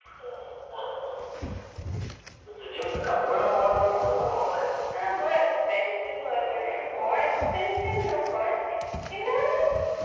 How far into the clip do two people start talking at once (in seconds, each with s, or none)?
none